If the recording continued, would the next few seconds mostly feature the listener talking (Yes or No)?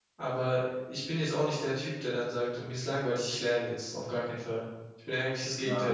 Yes